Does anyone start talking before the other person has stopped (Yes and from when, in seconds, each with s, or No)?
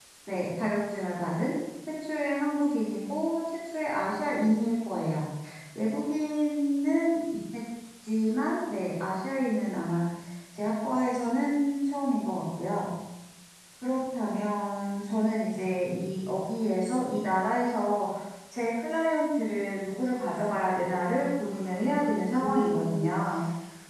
Yes, from 21.4 s